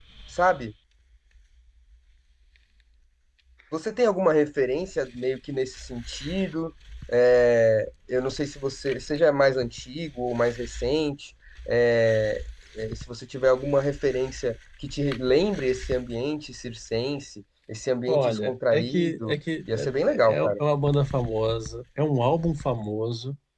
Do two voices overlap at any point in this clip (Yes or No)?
Yes